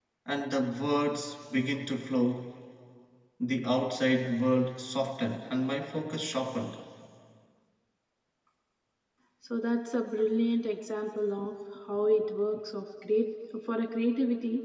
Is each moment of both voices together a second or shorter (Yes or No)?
Yes